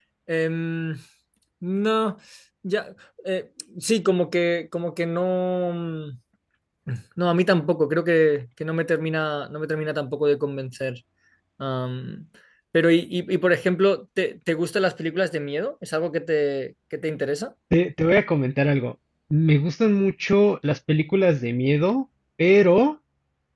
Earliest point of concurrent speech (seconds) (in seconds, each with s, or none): none